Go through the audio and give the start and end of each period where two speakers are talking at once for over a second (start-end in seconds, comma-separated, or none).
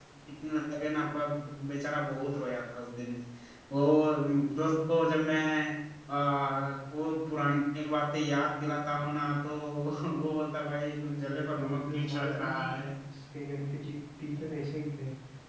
11.4-12.9